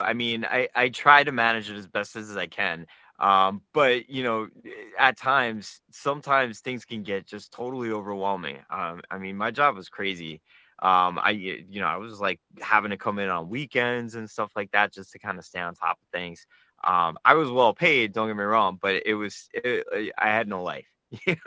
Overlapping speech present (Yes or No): No